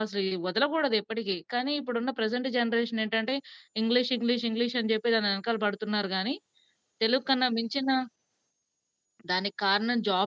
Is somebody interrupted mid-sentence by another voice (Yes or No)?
No